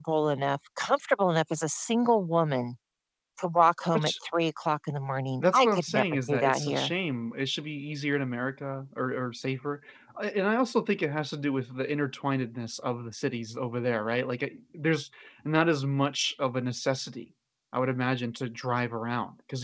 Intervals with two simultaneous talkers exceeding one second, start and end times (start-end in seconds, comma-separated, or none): 5.4-6.9